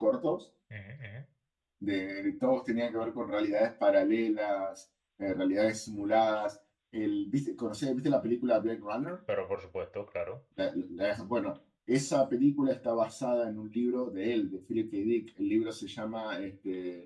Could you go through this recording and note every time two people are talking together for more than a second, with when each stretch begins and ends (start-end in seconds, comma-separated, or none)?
none